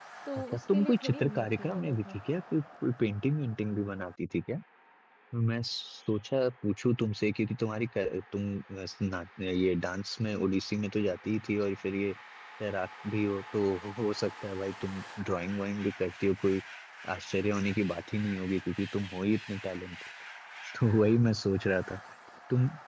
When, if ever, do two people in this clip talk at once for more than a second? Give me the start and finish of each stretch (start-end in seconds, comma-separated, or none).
0.5-2.2